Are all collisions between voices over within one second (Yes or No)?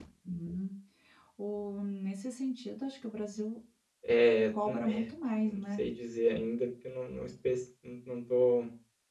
No